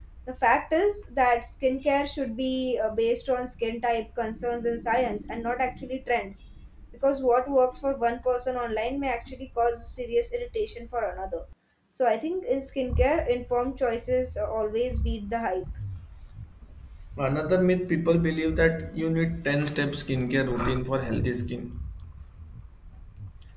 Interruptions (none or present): none